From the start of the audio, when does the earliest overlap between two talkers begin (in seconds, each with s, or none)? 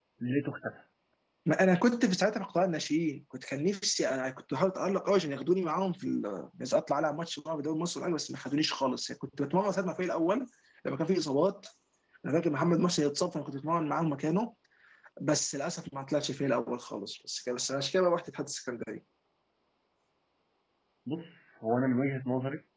none